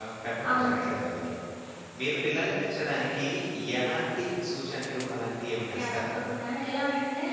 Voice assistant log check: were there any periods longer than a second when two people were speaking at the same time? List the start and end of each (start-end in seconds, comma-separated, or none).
none